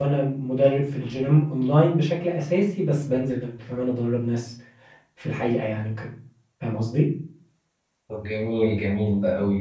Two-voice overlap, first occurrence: none

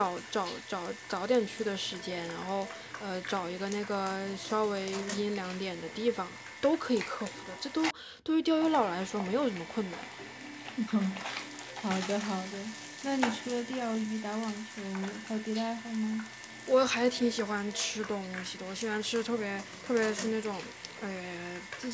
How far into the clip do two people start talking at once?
none

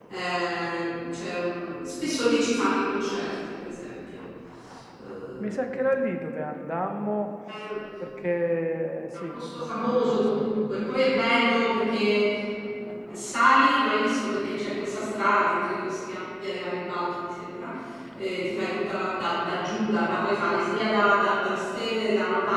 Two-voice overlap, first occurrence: 9.3 s

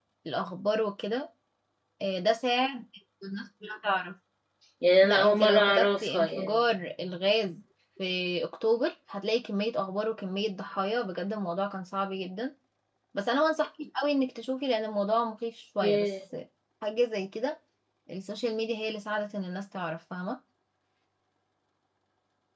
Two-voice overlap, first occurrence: 5.0 s

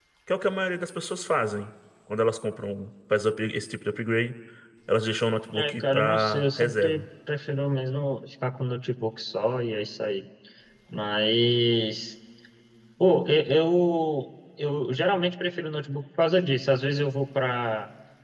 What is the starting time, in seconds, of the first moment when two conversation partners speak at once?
5.5 s

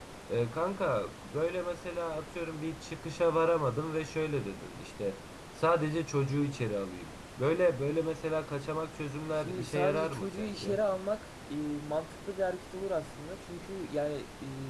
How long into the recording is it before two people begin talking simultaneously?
9.3 s

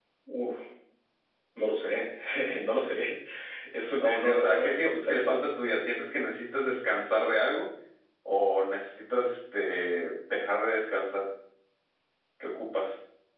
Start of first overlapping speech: 4.0 s

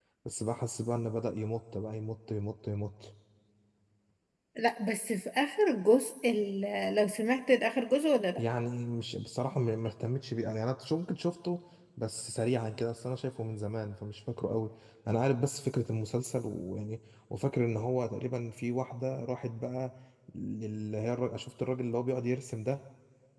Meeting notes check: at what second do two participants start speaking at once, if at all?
none

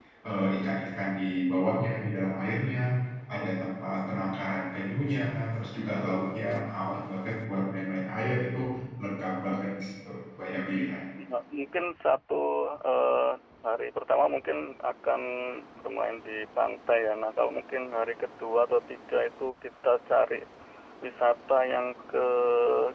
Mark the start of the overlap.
none

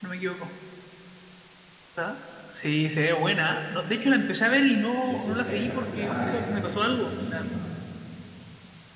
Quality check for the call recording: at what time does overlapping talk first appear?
5.1 s

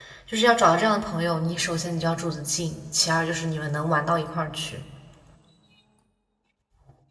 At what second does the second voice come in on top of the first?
none

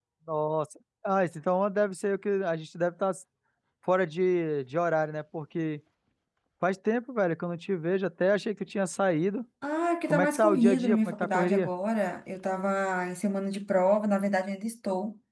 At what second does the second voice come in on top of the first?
10.1 s

